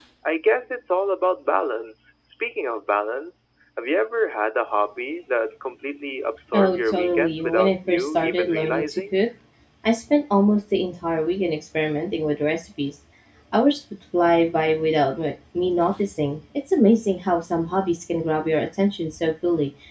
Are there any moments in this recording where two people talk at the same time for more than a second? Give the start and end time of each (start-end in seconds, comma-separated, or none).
6.5-9.2